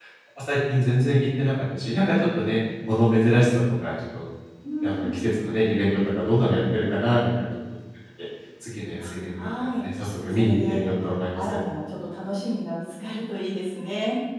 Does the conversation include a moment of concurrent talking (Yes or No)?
Yes